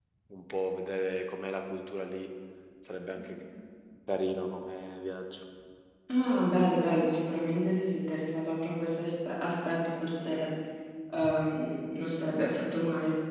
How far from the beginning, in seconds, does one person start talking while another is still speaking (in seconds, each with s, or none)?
none